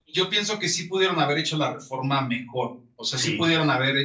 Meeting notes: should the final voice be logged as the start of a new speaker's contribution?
No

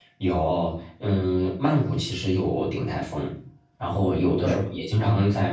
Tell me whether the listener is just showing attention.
Yes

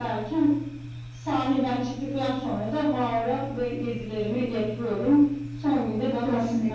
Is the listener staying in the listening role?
Yes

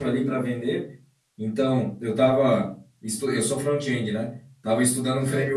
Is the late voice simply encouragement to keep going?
Yes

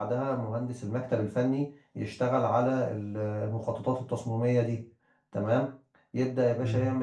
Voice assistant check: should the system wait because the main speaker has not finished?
Yes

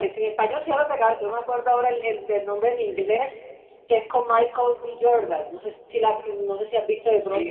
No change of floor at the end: No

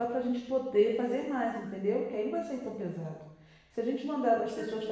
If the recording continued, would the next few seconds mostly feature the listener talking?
No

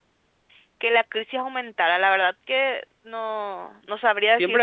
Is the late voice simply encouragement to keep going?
No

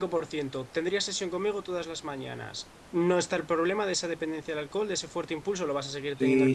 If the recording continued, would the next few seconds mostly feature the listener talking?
Yes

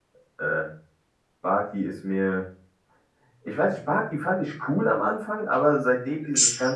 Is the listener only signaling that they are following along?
Yes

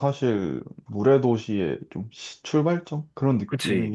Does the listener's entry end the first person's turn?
Yes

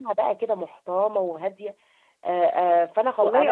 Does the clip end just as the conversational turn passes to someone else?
Yes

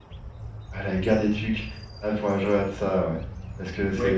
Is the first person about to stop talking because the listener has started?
Yes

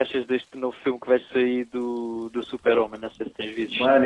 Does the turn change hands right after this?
Yes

